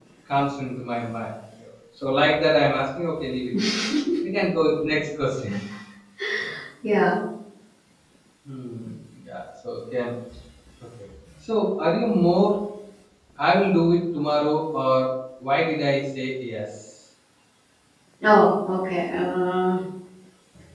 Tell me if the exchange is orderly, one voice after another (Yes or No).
Yes